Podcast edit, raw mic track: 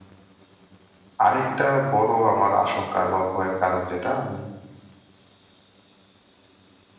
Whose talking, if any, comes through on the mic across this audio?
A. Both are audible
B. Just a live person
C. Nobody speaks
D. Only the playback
B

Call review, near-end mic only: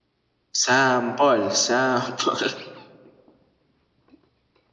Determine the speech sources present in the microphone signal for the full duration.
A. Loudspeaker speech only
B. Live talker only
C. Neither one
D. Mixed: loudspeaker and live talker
B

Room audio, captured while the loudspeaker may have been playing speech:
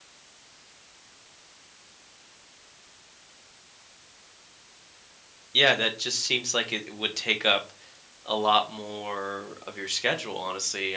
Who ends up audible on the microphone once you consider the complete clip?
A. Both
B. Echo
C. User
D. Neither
C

